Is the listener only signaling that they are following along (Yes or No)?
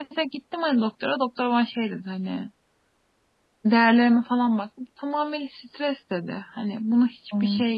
Yes